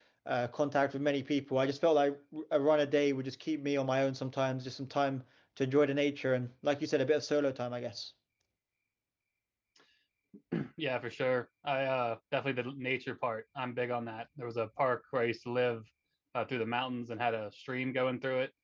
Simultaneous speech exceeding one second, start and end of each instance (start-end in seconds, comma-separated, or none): none